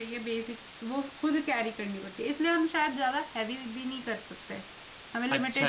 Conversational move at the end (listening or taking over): taking over